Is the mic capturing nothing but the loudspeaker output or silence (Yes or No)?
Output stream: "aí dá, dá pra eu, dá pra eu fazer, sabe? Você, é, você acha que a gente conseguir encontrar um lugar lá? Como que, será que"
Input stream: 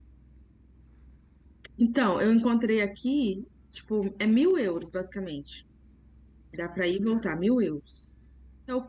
No